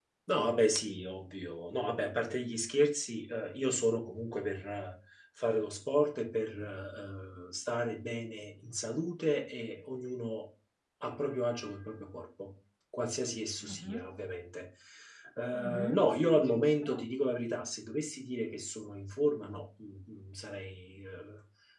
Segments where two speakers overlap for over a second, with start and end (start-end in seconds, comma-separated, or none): 15.5-17.1